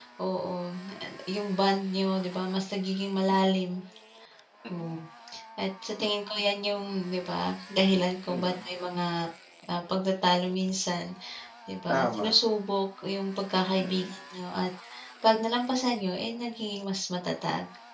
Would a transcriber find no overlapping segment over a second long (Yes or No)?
Yes